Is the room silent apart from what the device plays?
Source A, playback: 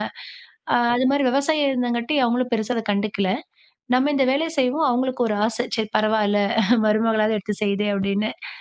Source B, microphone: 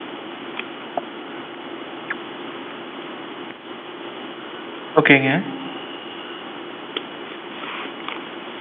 No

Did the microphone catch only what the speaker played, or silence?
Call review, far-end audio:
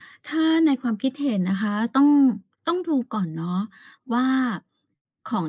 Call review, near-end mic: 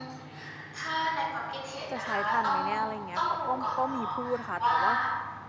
No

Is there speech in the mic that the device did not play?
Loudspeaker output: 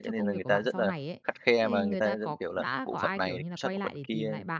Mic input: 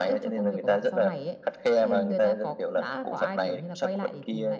No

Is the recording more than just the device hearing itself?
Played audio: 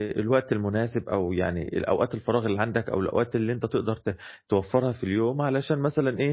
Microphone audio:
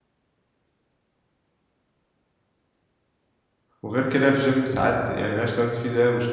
Yes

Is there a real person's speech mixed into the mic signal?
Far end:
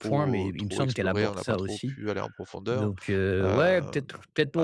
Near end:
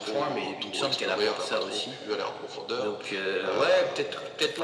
No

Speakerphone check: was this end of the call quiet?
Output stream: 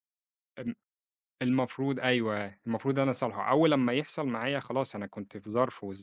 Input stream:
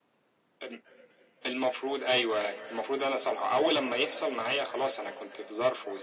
Yes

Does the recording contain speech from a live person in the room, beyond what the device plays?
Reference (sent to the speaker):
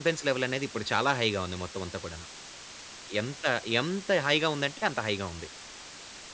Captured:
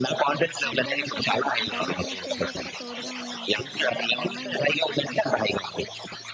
Yes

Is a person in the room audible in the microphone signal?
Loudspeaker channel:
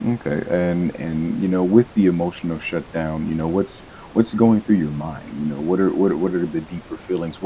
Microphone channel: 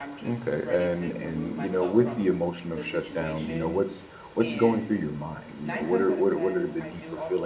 Yes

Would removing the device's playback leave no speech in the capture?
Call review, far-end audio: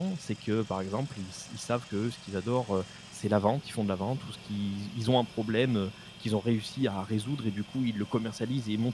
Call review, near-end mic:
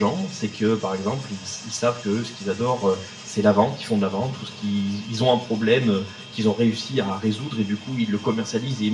Yes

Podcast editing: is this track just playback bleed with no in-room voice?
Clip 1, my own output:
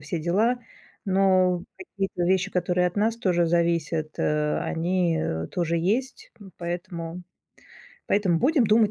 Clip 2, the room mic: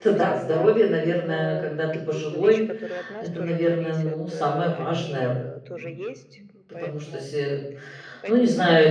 No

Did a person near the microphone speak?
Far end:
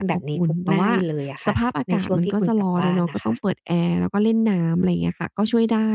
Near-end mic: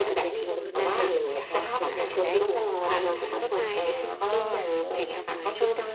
Yes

